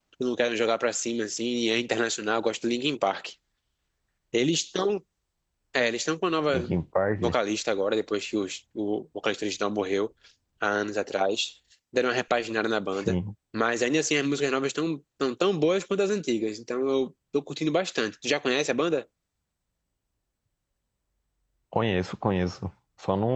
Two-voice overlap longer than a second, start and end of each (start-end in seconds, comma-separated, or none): none